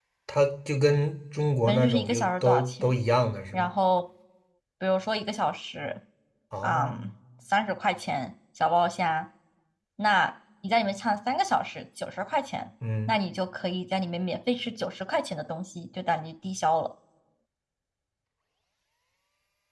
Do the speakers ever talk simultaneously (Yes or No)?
Yes